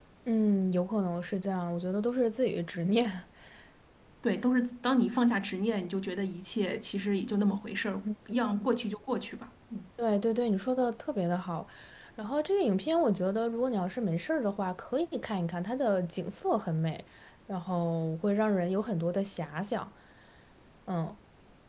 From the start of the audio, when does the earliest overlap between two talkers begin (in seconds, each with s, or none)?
none